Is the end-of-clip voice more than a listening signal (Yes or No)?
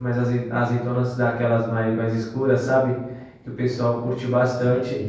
No